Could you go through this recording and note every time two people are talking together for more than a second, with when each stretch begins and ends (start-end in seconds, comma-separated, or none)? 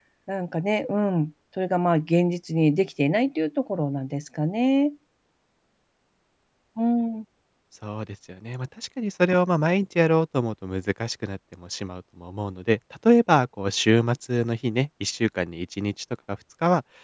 none